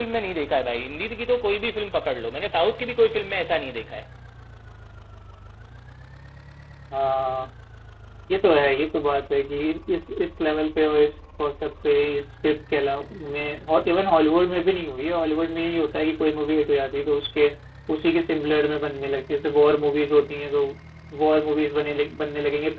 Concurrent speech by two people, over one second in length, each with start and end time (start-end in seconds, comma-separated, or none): none